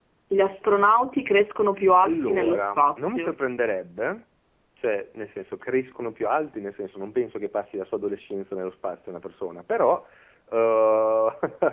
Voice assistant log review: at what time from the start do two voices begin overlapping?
2.0 s

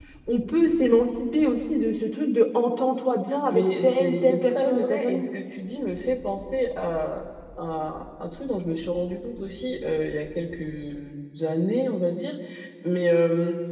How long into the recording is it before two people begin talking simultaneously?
3.5 s

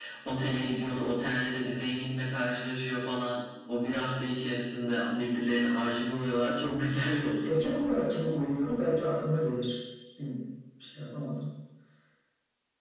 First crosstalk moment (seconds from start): none

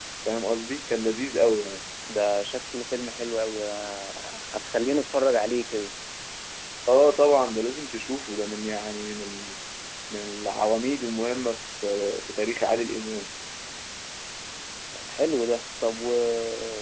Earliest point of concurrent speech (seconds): none

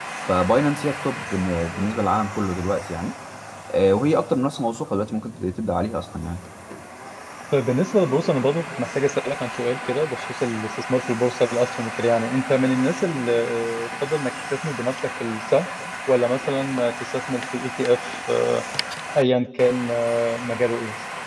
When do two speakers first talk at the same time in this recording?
none

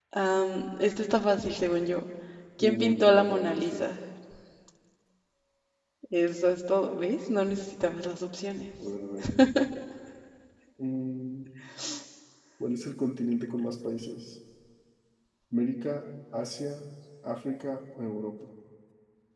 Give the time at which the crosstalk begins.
2.6 s

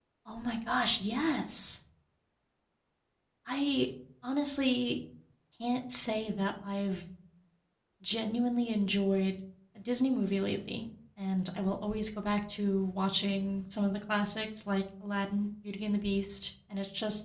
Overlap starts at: none

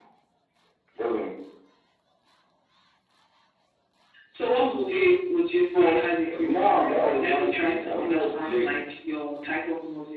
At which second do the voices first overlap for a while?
5.7 s

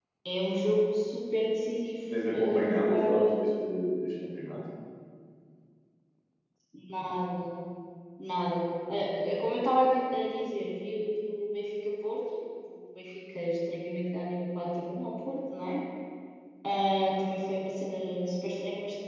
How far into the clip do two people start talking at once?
2.1 s

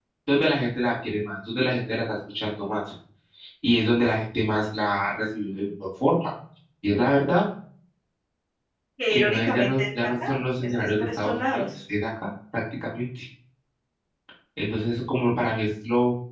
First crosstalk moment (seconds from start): 9.1 s

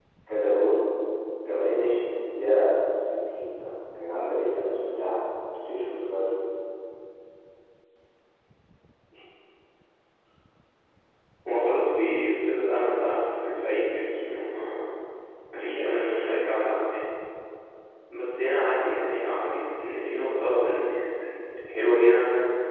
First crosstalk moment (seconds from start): none

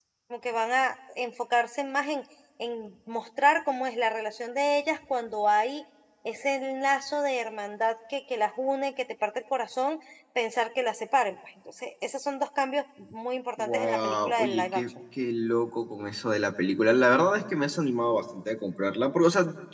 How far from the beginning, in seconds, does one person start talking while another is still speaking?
13.6 s

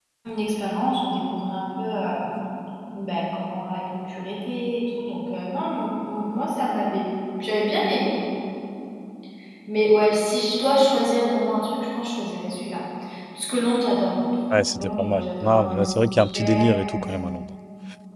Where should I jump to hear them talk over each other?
14.5 s

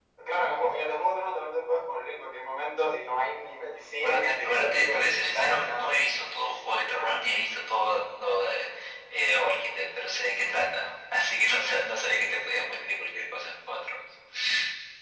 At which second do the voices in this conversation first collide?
4.0 s

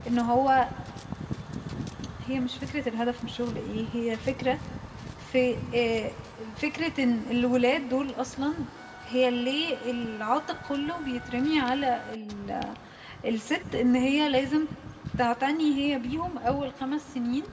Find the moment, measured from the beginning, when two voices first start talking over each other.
none

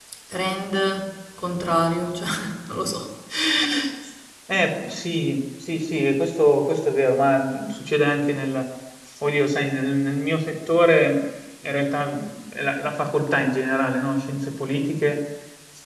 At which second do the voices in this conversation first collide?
none

